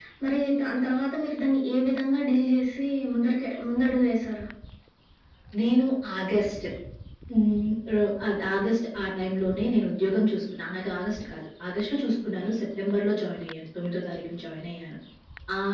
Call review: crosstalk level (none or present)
none